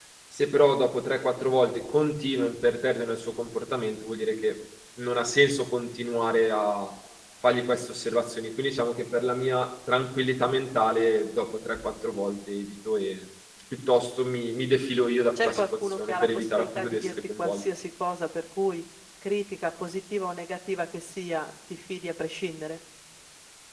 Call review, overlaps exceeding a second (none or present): present